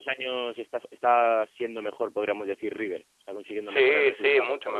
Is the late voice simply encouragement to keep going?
No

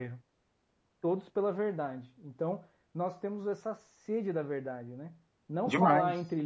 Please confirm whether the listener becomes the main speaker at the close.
No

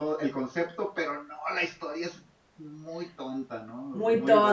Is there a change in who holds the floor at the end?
Yes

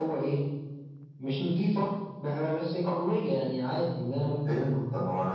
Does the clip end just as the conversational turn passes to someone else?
Yes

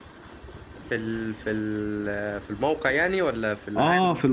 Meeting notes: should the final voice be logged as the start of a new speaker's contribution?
Yes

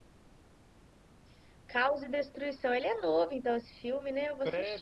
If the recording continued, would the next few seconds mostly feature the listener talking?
Yes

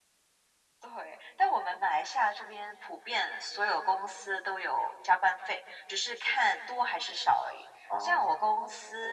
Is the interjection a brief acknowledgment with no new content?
Yes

